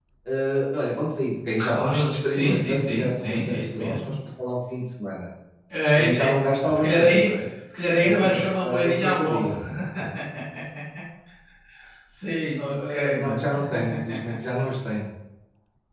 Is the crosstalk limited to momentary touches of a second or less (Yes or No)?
No